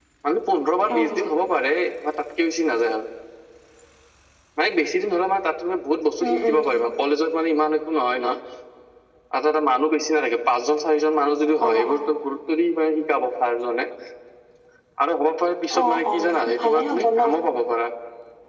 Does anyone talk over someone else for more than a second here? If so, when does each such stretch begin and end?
15.8-17.2

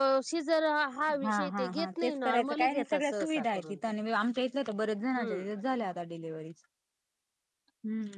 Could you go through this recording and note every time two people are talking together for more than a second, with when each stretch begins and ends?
1.2-3.8

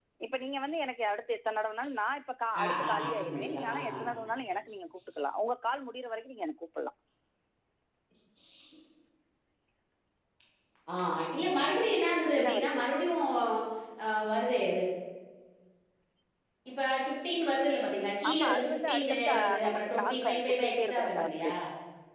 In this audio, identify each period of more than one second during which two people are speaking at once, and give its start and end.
2.6-3.9, 18.3-21.4

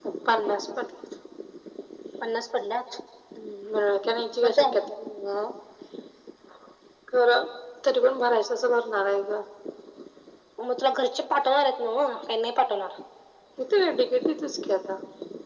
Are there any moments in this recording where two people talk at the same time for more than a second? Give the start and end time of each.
none

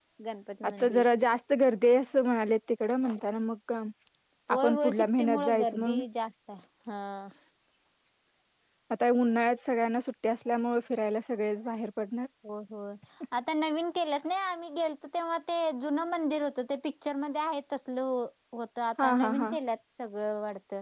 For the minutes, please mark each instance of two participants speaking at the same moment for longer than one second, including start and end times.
4.5-6.0

